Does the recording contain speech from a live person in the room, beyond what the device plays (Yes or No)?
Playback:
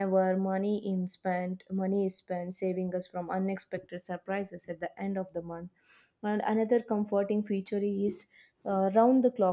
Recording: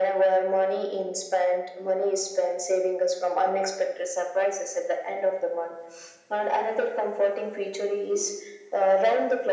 No